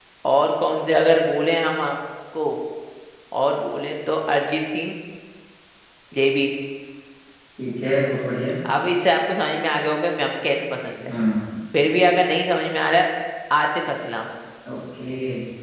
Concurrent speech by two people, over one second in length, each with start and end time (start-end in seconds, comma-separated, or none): none